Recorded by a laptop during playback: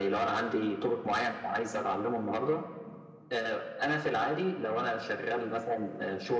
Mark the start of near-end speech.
none

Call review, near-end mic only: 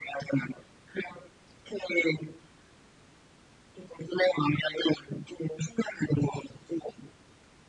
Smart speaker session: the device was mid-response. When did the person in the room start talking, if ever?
none

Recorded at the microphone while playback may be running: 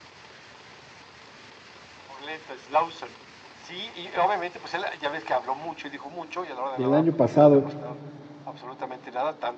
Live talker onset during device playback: 6.7 s

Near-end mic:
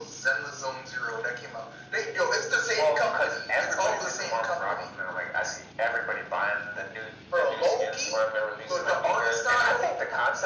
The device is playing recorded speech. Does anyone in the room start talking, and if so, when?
none

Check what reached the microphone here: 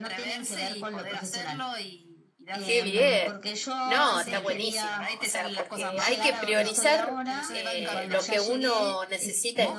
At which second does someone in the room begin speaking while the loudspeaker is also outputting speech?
2.6 s

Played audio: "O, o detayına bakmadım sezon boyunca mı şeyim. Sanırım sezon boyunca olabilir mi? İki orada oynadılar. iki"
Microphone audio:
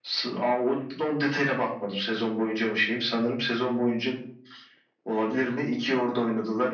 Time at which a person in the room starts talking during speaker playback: none

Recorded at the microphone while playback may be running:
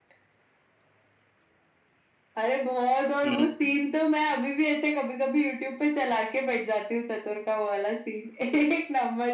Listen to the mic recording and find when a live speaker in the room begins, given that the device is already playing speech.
3.2 s

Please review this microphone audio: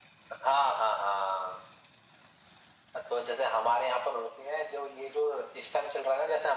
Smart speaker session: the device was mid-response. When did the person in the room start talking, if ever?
none

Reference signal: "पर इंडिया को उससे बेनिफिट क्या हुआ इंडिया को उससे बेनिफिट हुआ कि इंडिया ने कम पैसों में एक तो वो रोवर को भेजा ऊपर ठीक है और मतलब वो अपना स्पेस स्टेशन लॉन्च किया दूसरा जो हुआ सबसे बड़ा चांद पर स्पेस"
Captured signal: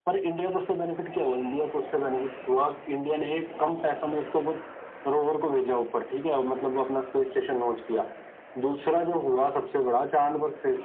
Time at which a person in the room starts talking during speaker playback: none

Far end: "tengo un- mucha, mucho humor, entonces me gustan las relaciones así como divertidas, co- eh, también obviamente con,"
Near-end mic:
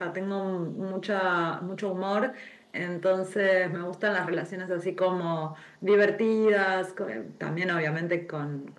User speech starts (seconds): none

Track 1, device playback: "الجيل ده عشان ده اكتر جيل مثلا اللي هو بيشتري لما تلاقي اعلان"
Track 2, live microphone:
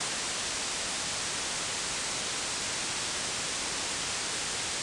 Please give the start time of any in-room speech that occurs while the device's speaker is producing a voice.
none

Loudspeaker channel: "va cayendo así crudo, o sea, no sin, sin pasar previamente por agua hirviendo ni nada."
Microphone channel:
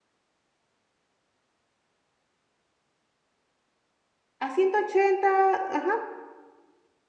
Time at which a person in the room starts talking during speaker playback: 4.4 s

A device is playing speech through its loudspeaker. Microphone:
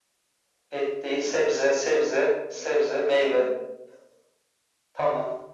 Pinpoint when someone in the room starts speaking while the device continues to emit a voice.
none

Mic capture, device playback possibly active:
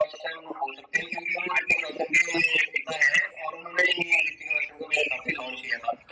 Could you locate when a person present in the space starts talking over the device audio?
none

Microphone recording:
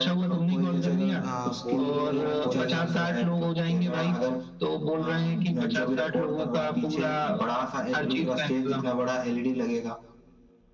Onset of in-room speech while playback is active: 0.3 s

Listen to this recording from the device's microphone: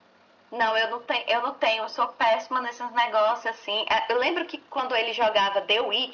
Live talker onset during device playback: none

